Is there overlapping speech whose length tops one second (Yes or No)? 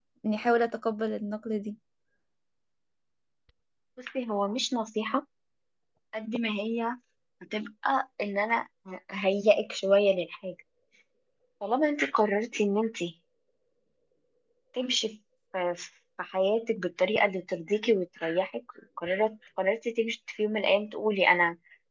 No